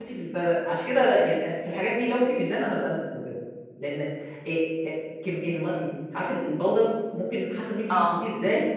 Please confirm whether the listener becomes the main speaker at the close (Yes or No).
No